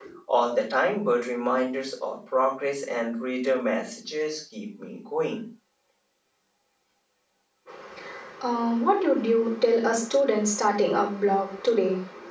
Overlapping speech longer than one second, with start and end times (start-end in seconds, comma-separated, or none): none